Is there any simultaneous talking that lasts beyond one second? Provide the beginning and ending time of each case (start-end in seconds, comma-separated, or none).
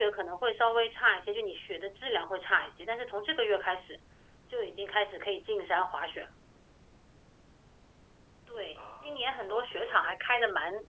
8.8-10.2